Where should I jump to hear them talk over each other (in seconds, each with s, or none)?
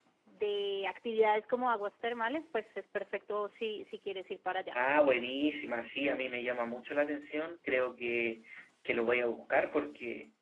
none